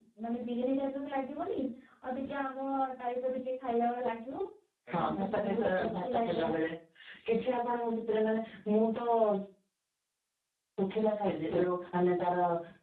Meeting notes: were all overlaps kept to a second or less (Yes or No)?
No